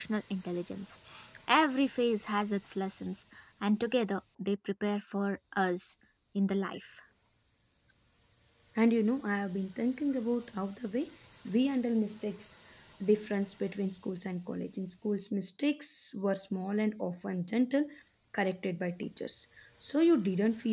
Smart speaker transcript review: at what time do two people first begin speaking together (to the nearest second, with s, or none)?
none